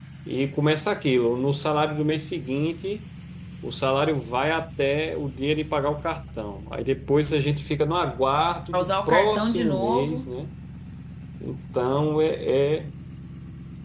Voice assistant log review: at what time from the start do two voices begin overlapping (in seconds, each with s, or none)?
8.7 s